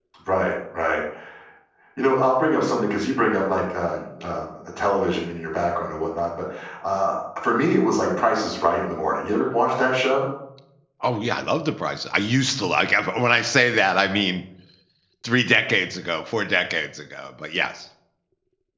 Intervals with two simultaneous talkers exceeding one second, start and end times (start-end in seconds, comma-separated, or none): none